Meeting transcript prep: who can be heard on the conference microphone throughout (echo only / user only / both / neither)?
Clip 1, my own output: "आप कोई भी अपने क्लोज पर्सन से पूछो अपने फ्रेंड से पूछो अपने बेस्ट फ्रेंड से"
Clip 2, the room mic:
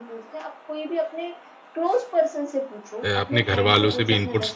both